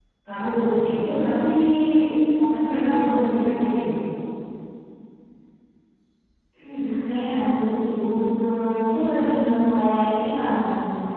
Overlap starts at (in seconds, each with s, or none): none